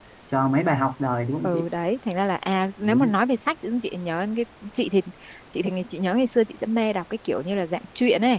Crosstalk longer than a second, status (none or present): none